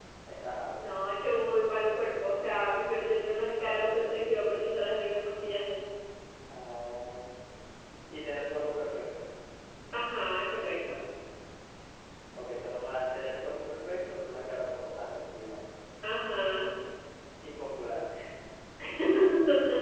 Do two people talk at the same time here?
No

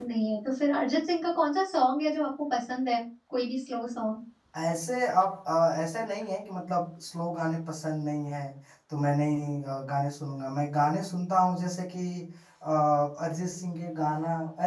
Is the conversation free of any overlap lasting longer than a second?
Yes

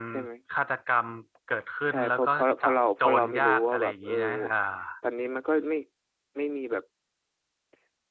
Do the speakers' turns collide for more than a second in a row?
Yes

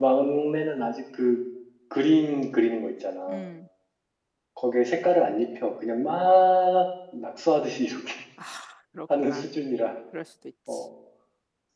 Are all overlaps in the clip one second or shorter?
Yes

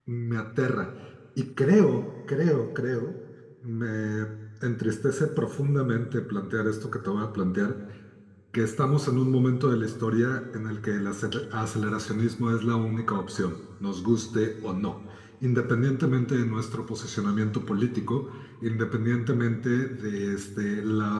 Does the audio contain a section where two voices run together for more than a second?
No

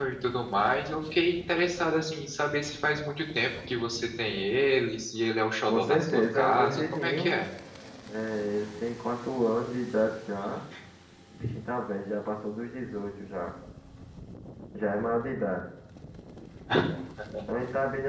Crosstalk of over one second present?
Yes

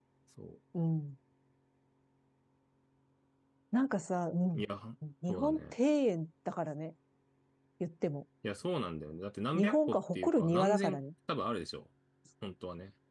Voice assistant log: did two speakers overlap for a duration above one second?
Yes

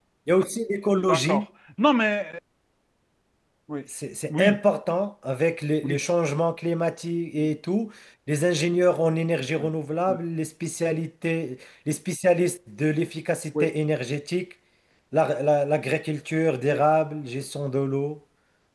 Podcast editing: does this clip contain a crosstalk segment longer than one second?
No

